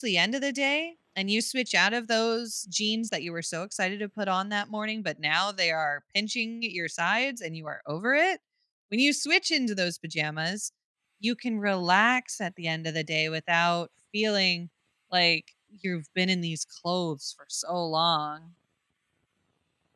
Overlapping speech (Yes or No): No